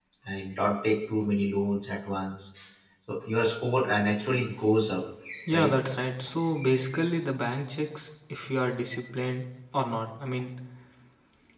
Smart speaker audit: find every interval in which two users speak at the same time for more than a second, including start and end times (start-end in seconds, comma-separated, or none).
none